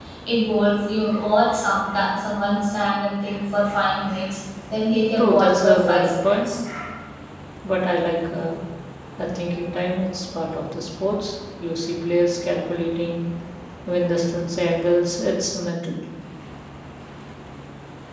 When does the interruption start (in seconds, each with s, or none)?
5.2 s